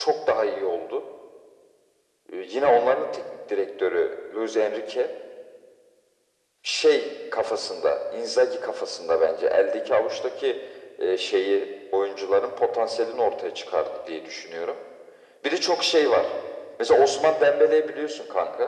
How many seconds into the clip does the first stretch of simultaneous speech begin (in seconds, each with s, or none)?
none